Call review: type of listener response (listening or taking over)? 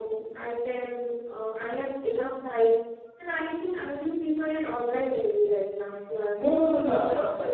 taking over